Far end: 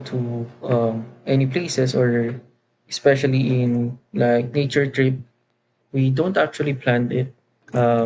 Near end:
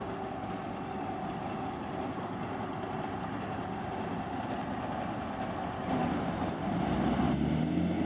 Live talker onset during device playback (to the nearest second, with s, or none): none